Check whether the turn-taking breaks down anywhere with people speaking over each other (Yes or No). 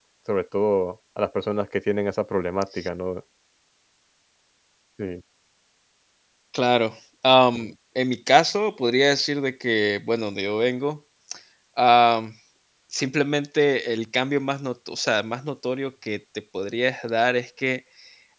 No